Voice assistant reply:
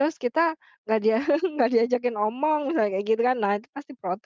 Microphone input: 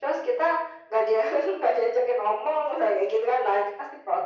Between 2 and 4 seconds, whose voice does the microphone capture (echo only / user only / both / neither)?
echo only